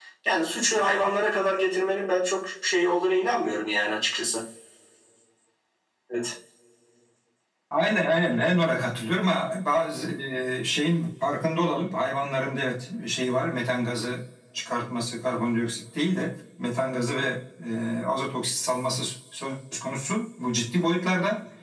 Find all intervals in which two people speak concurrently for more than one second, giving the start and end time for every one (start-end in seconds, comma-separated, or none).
none